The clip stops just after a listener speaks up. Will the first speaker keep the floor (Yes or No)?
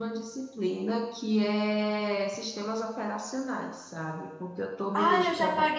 No